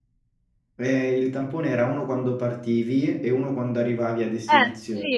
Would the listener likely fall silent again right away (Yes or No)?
No